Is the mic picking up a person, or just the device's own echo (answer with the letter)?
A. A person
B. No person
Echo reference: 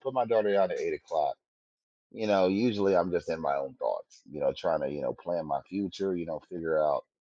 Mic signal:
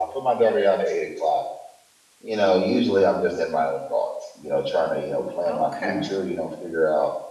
A